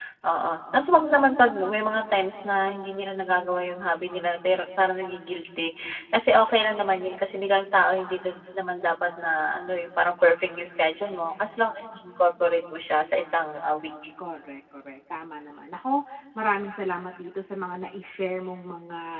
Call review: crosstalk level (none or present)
none